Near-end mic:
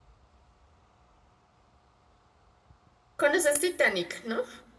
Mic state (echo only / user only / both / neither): user only